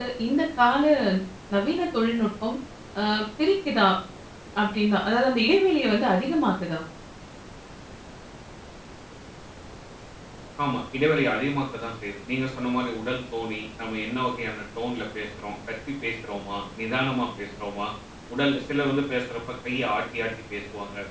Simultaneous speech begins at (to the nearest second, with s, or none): none